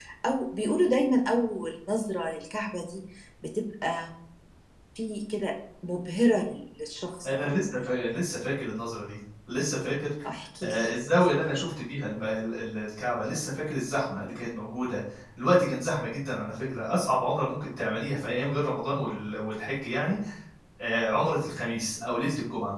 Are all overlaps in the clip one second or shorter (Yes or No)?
Yes